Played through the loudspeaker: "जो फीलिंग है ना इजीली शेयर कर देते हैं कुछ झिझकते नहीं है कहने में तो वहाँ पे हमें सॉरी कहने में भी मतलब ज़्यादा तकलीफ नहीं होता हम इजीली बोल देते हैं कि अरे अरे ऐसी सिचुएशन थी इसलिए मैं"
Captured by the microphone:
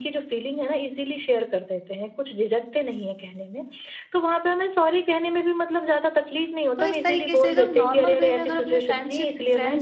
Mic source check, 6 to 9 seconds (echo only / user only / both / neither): both